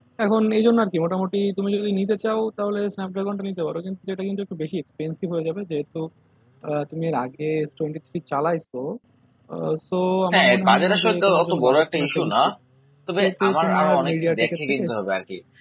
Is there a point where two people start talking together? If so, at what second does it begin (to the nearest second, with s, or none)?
10 s